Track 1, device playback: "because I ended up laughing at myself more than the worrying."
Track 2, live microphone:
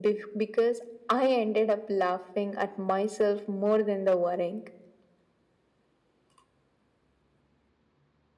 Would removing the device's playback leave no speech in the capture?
Yes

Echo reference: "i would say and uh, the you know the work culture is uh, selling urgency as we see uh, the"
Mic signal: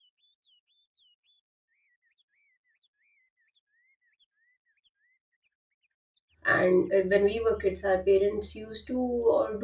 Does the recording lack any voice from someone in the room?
No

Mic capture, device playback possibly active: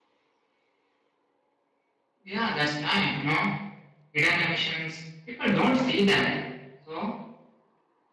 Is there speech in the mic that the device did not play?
No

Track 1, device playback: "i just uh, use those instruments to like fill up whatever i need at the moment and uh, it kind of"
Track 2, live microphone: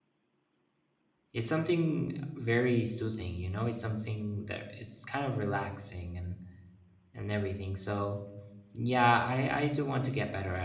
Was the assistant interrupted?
Yes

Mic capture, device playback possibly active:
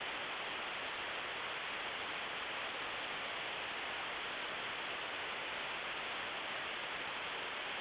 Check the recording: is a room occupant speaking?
No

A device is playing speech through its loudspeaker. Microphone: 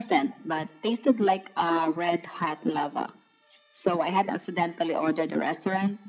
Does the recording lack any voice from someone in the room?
Yes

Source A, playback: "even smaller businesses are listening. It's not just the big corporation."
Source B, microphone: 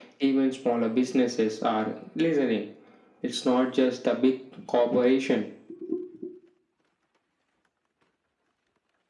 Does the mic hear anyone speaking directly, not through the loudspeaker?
No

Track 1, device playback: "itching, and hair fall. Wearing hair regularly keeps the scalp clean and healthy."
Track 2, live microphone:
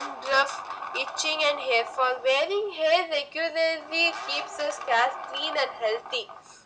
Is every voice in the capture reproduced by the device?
Yes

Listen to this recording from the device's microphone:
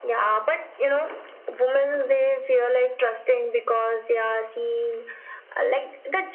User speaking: No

